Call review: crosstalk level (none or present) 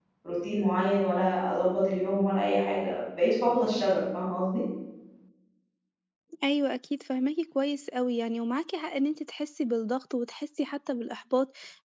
none